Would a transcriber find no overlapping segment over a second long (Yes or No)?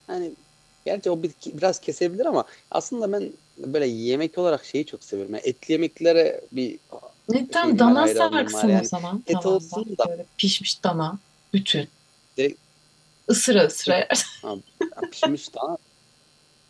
No